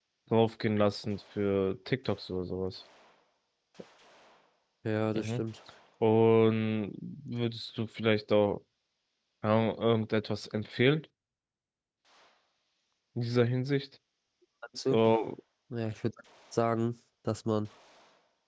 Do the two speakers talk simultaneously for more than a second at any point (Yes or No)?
No